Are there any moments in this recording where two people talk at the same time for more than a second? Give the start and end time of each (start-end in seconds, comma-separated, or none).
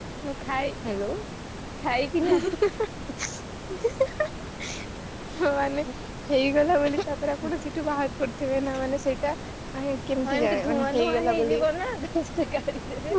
10.2-11.6